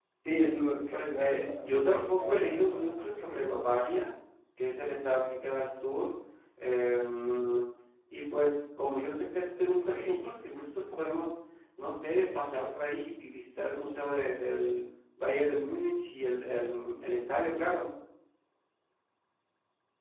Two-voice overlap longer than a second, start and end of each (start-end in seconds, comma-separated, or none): 0.9-3.4